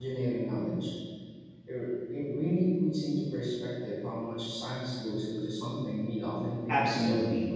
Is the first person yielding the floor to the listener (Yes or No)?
Yes